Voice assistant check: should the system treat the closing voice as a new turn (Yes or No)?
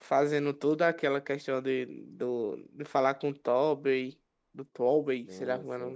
Yes